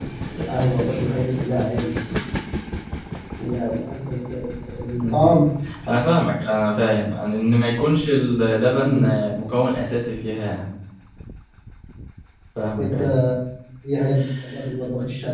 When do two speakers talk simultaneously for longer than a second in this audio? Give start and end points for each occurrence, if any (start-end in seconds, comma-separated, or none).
none